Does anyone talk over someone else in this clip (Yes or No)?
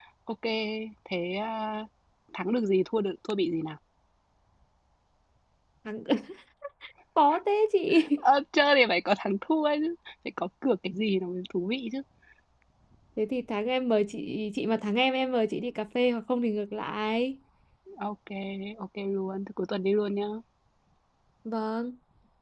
No